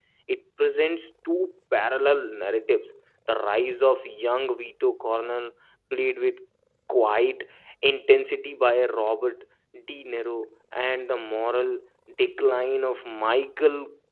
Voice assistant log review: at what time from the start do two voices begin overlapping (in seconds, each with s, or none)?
none